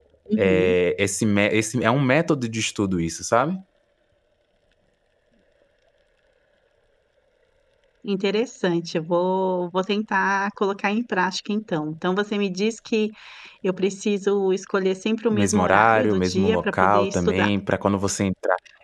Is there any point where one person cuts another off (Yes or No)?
Yes